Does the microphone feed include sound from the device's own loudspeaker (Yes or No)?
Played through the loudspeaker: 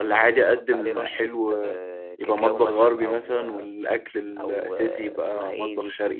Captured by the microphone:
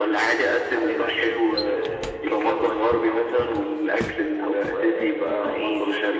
Yes